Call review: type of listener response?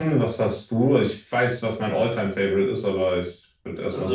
taking over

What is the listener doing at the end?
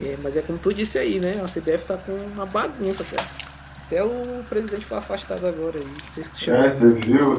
taking over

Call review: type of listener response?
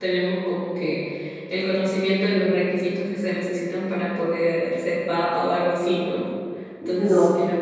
listening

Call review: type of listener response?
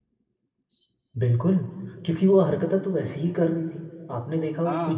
listening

